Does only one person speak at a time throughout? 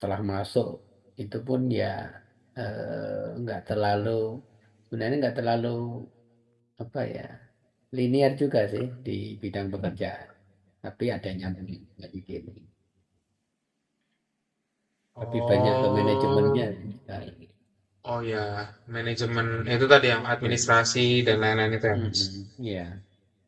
No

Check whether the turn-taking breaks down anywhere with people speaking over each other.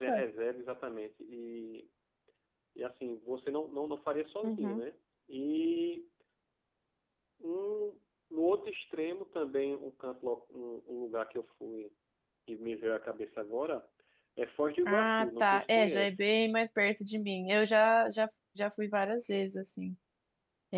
Yes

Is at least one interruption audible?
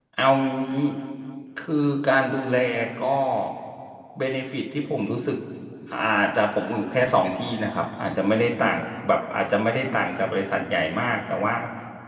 No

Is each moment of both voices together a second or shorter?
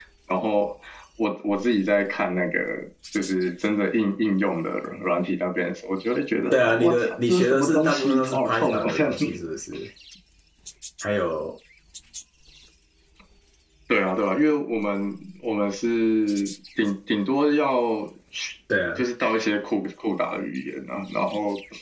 No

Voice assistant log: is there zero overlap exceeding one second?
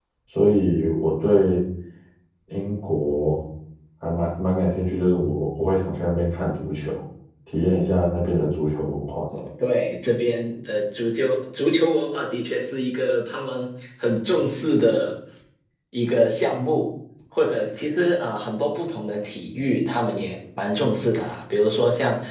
Yes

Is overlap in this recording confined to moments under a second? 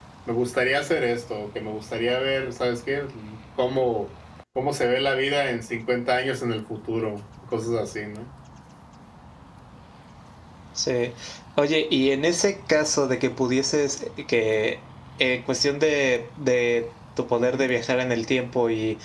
Yes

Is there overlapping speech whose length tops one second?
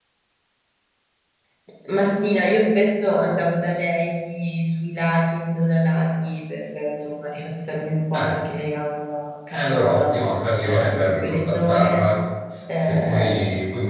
Yes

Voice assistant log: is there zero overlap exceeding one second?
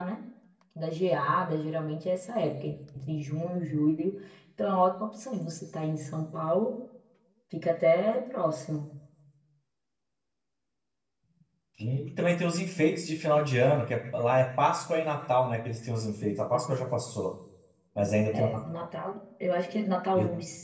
Yes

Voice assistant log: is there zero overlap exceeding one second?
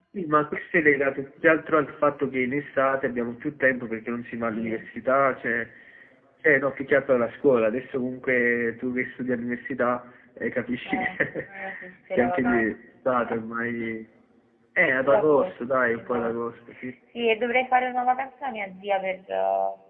No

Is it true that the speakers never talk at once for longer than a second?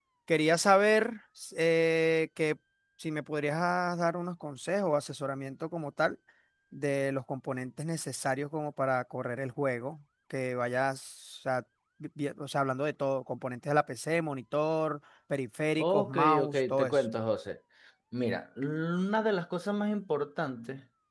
No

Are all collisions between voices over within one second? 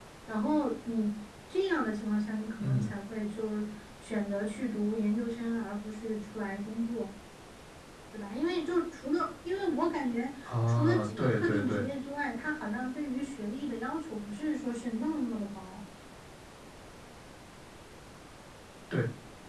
No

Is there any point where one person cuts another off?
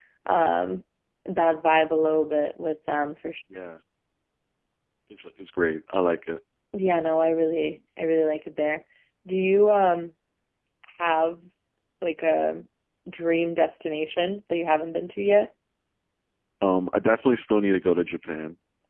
No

